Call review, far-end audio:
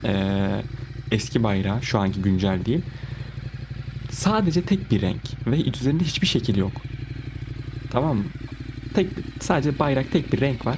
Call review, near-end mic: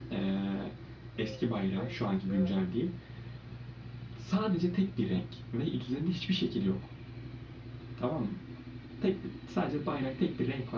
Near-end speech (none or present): present